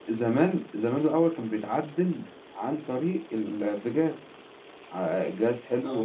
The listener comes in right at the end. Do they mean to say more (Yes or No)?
No